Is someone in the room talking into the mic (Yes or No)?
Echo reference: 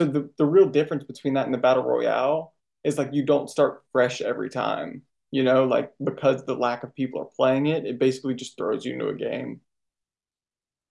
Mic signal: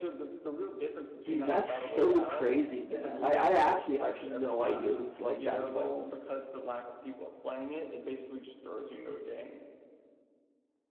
Yes